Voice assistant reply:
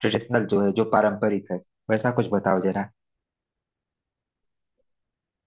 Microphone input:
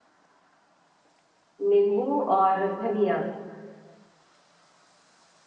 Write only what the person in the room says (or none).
नींबू और धनिया